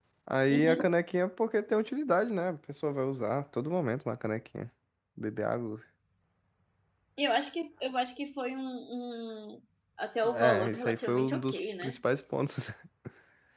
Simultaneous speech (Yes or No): Yes